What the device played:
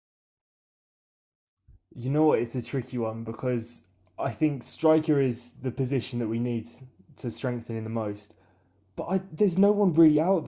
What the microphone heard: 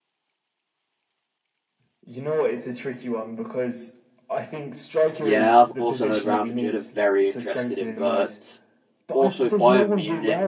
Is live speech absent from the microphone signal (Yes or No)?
No